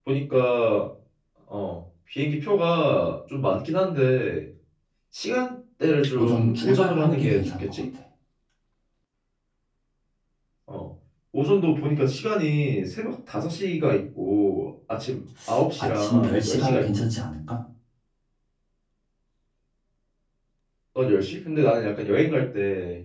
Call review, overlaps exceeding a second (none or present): present